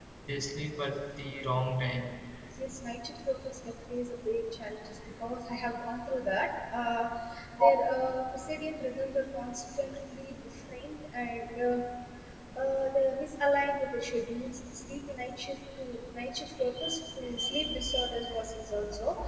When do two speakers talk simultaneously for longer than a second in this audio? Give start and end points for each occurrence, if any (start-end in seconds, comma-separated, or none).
none